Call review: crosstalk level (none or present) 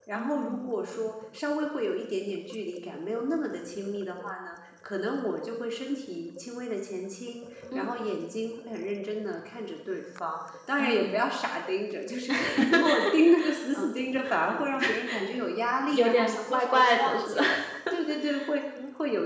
present